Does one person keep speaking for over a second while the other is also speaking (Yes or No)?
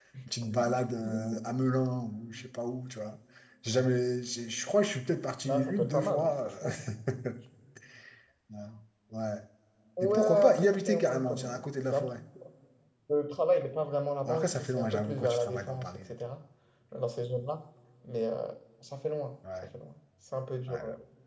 Yes